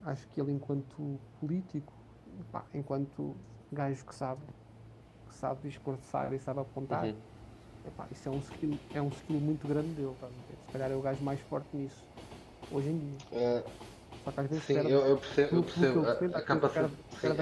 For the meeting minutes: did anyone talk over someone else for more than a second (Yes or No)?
Yes